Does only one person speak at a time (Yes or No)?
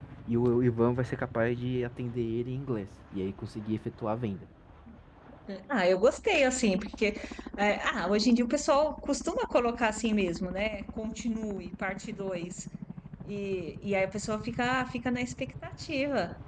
Yes